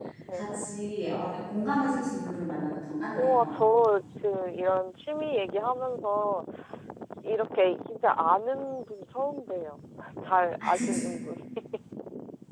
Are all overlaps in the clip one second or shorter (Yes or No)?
Yes